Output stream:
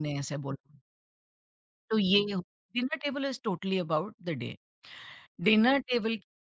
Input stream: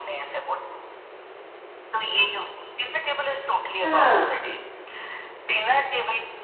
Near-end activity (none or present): present